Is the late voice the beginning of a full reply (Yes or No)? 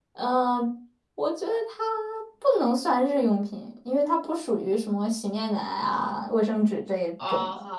Yes